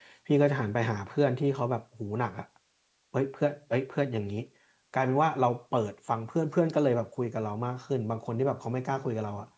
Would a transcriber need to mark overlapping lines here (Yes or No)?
No